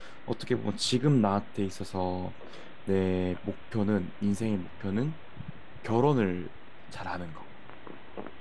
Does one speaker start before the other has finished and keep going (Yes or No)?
No